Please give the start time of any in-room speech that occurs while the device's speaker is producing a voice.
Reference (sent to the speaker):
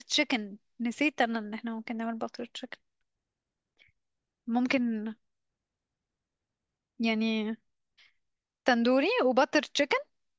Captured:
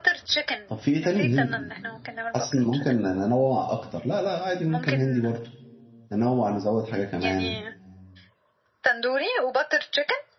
0.7 s

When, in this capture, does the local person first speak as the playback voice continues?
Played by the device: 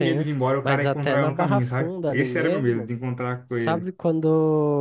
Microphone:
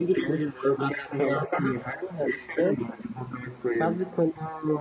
none

